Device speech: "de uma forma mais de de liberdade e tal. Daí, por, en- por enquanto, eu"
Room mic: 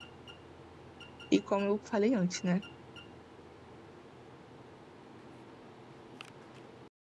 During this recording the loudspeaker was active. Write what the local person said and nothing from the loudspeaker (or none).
E como eu falei antes, né?